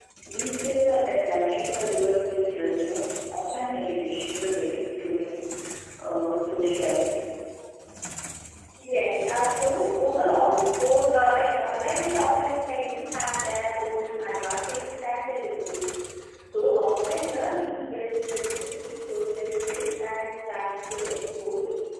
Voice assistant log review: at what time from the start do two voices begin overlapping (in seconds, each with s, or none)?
none